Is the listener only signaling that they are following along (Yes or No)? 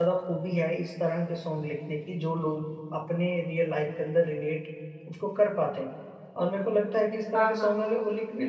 Yes